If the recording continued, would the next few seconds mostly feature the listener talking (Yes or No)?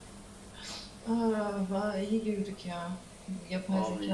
No